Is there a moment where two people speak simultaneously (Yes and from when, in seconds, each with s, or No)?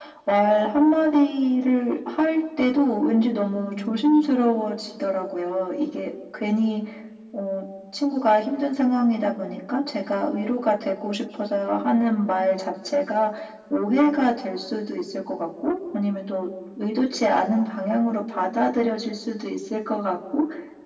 No